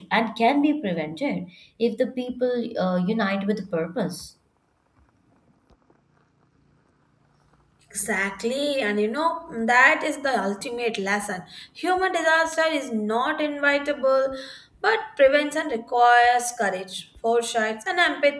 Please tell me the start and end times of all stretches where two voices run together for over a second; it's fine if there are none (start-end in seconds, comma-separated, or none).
none